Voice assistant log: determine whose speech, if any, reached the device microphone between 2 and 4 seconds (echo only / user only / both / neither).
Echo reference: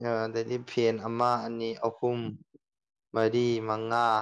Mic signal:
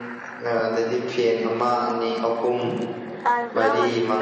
both